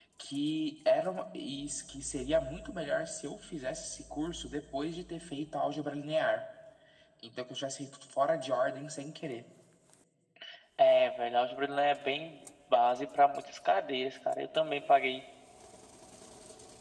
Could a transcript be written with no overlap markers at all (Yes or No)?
Yes